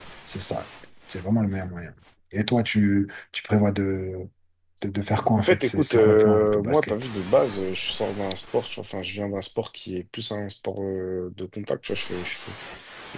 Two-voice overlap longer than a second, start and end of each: 5.4-7.0

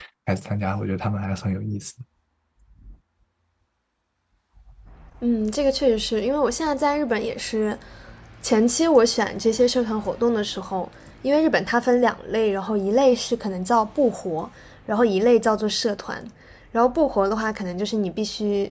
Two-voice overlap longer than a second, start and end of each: none

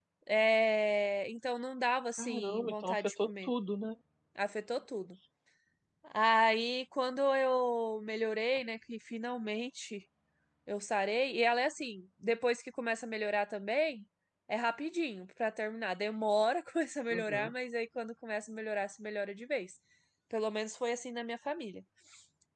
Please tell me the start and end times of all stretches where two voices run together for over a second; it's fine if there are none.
2.2-3.5

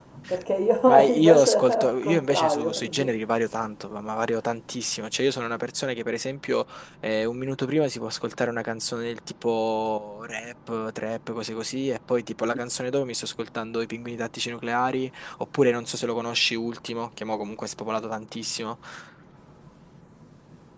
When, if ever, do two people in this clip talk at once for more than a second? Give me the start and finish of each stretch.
0.9-3.1

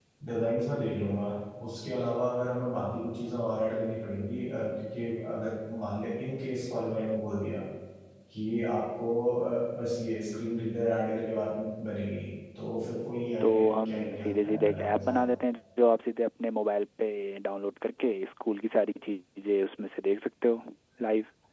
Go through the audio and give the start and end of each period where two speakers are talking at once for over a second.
13.4-15.2

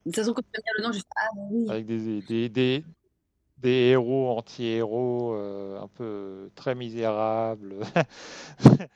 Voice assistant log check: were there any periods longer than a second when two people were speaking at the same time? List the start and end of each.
none

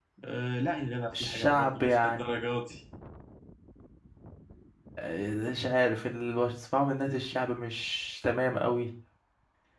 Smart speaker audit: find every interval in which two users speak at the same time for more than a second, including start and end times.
1.1-2.4

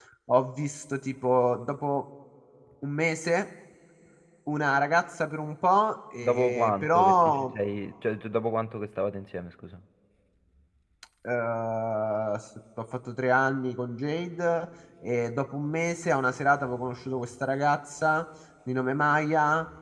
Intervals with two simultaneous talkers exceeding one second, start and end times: 6.2-7.5

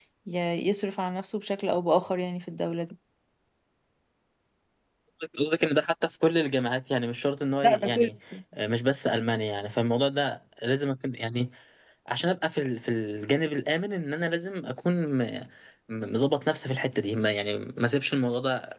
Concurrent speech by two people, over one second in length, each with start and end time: none

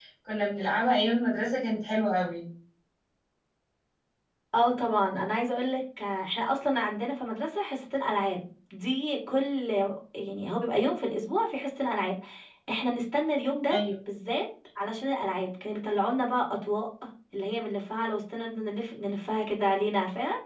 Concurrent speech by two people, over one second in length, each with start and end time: none

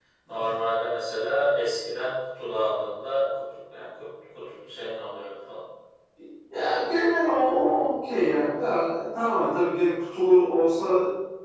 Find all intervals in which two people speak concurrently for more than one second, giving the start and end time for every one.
none

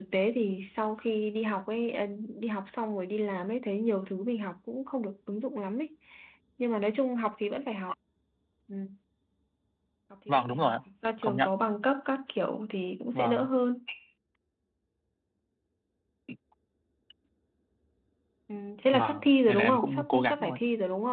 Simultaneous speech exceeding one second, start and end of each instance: 18.9-20.6

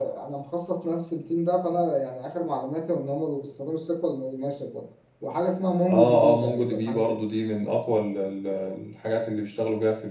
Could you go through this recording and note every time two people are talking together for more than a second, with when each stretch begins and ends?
5.9-7.2

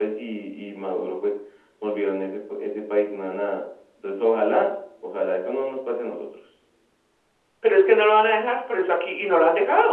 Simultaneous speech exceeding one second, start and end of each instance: none

